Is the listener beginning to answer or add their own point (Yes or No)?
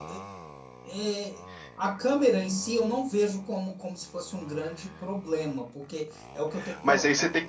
Yes